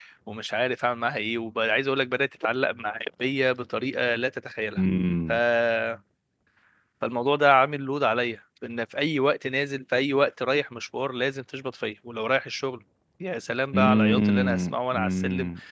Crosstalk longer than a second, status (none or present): present